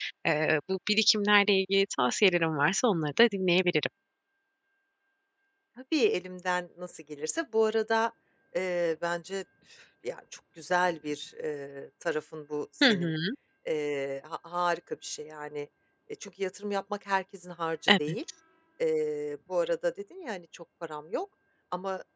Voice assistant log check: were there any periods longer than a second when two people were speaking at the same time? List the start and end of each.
none

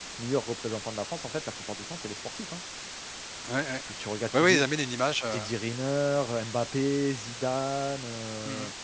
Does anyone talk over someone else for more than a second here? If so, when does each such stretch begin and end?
none

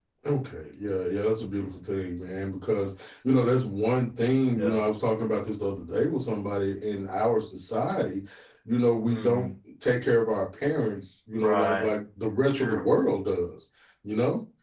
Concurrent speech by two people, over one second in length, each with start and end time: none

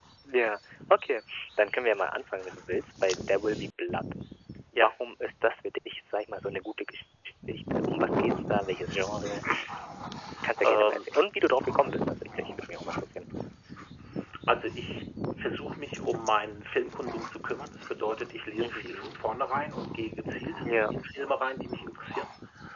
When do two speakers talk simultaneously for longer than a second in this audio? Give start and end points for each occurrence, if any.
none

